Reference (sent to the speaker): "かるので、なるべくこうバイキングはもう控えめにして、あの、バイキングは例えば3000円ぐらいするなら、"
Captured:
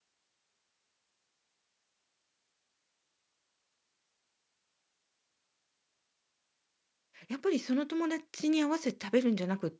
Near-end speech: present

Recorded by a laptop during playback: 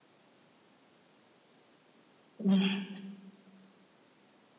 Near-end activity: present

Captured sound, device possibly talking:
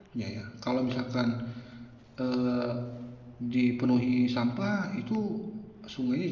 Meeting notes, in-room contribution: present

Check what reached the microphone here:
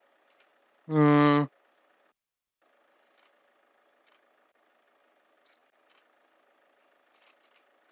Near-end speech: present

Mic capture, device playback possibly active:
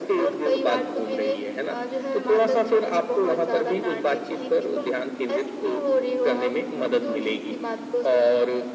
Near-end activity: none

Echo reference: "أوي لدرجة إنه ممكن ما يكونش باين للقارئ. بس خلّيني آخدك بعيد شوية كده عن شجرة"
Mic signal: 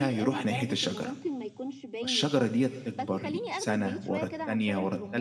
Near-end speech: present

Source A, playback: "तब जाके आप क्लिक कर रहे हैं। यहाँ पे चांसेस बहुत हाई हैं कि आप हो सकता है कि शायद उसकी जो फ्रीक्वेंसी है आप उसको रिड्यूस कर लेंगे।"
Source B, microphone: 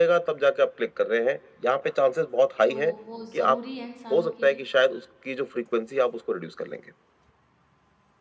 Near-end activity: present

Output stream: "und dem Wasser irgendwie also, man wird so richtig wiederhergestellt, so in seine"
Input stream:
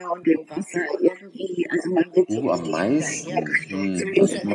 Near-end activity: present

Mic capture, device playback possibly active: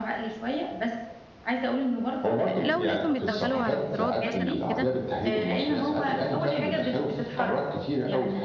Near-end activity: present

